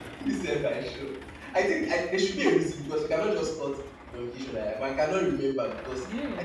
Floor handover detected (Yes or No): No